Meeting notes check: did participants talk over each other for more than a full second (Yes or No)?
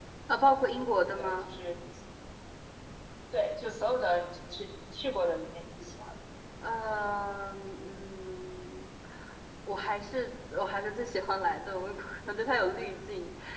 No